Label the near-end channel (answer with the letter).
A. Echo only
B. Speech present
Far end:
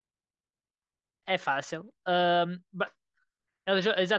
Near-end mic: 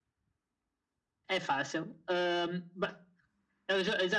A